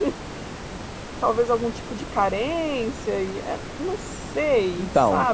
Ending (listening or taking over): taking over